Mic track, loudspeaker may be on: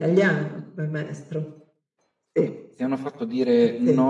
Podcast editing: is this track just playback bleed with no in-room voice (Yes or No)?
No